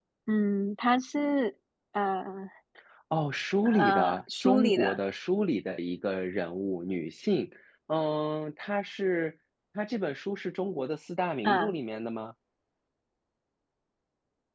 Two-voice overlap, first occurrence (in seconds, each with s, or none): 3.6 s